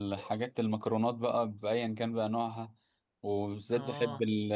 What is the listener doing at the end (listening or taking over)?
listening